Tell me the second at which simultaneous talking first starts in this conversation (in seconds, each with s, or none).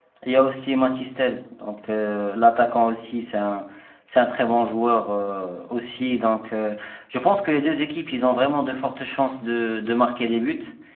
none